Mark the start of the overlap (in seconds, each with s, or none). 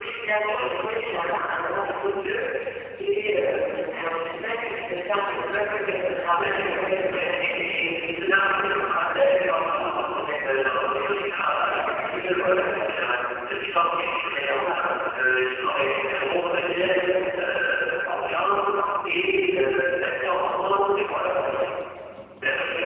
6.4 s